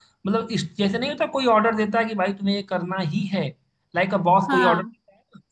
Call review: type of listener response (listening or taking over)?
listening